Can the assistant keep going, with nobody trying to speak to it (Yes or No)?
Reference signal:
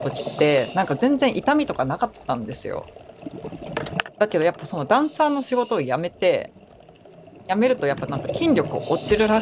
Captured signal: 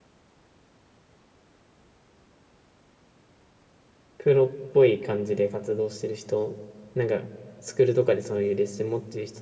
No